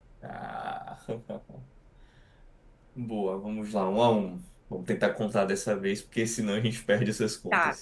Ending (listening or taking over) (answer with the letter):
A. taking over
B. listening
A